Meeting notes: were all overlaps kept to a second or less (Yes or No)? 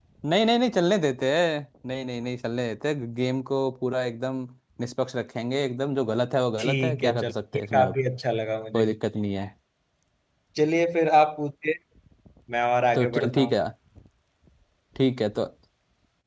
No